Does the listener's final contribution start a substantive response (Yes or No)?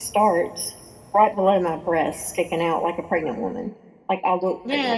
Yes